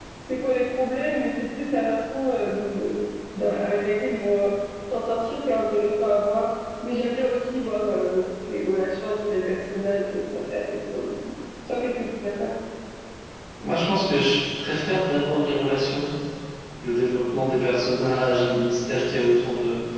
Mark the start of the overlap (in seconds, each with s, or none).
none